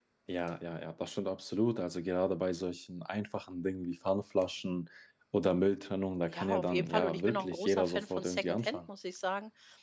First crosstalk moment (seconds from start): 6.3 s

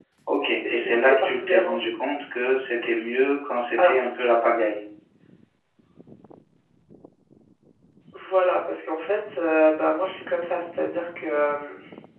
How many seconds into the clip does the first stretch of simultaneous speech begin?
0.7 s

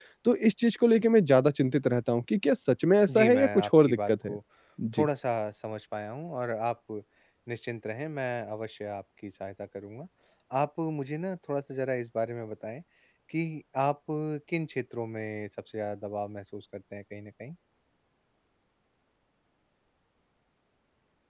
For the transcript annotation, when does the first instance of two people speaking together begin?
3.1 s

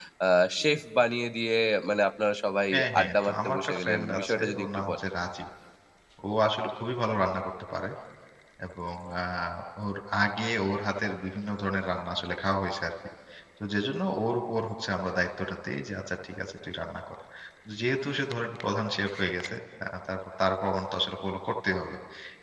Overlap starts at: 2.7 s

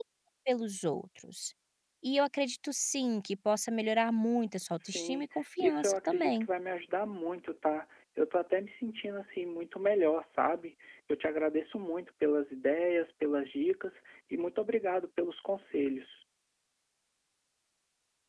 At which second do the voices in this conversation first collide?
4.8 s

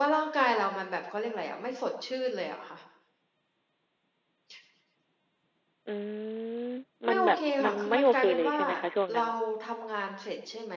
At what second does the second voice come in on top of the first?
7.1 s

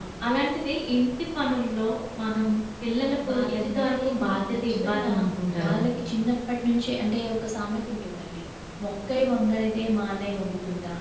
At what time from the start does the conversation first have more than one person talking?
3.2 s

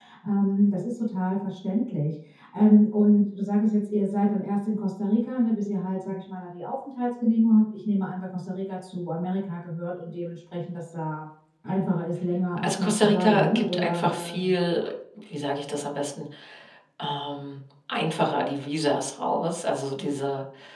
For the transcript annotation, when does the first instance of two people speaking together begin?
12.6 s

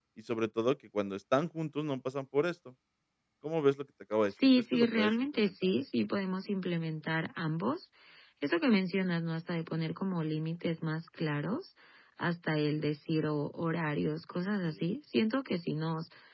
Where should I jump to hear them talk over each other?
4.3 s

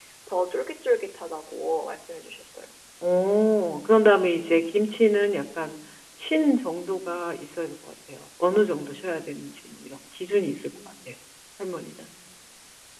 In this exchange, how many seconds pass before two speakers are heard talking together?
none

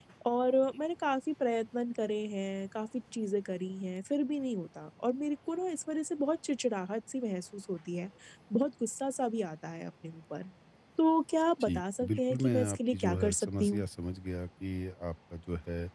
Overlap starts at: 11.6 s

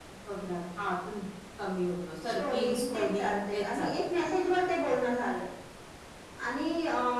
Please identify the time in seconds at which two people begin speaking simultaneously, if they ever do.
2.4 s

